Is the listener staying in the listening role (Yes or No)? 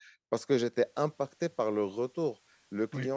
Yes